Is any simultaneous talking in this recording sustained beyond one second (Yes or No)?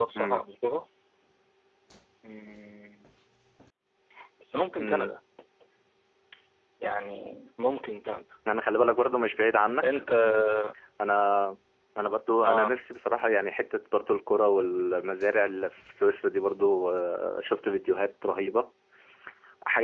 No